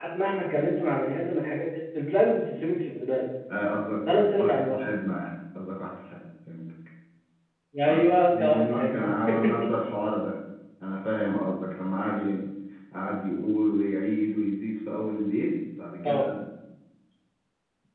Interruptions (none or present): present